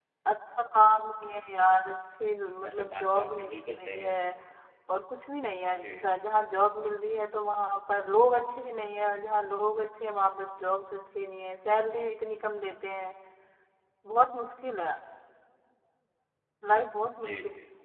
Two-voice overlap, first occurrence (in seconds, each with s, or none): 2.6 s